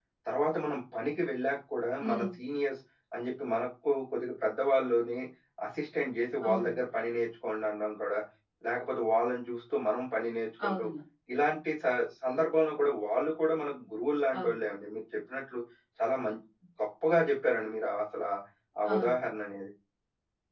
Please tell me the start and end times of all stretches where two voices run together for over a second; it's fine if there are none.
none

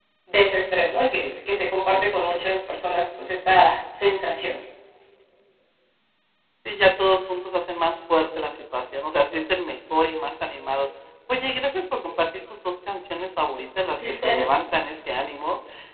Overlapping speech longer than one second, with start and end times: none

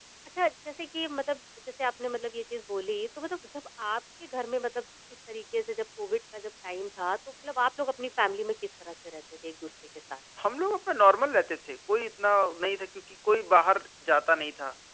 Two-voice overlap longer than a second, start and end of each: none

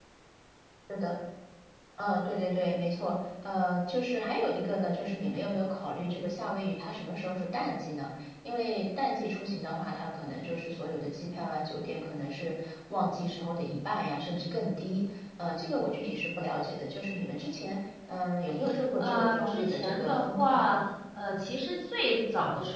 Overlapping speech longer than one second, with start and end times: 19.0-20.7

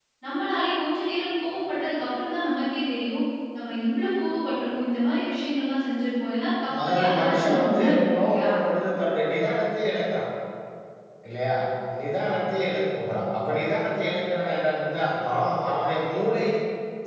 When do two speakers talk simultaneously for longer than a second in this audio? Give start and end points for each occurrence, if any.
6.7-8.5

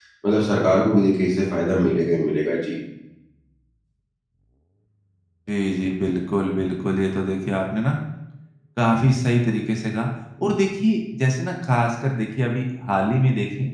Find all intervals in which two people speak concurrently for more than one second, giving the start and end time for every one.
none

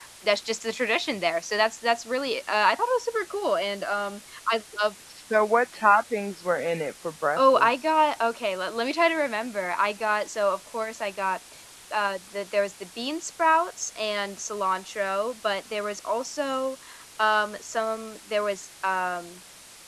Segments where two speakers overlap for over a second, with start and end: none

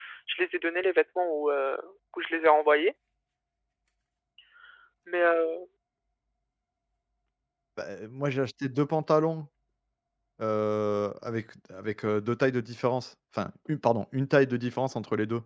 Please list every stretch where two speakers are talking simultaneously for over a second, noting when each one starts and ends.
none

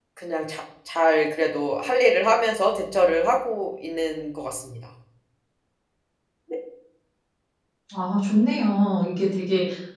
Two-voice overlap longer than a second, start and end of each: none

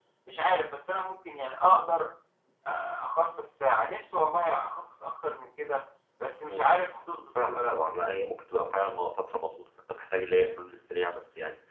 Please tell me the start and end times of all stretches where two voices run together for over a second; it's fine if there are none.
none

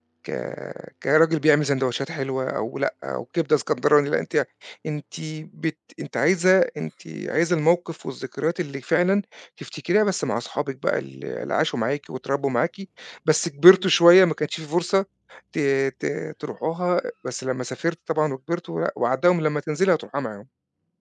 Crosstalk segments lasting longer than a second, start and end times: none

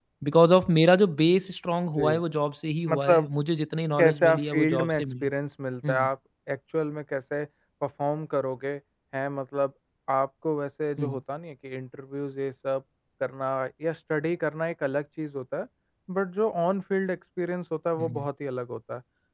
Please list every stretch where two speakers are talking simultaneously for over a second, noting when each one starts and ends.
4.0-5.3

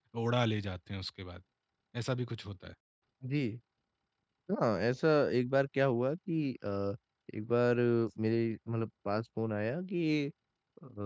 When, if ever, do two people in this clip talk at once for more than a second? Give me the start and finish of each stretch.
none

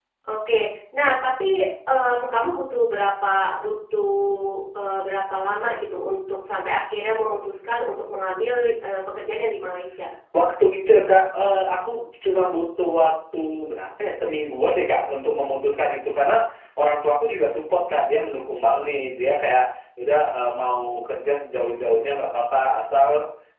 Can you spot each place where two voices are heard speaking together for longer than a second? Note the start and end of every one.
none

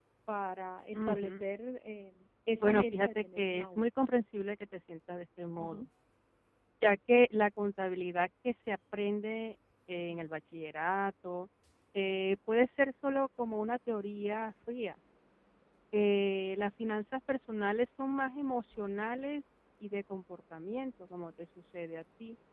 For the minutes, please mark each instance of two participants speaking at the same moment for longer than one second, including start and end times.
2.6-3.8

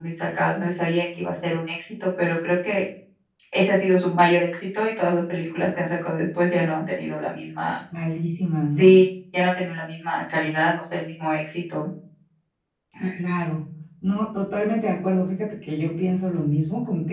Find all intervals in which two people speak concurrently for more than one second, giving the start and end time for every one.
none

